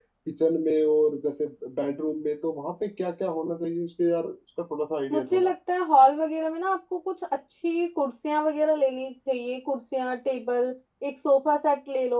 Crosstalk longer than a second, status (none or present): none